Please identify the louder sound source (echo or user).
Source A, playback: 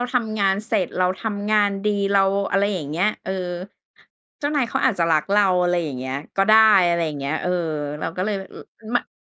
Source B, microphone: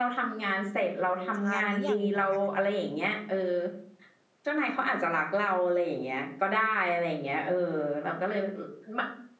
echo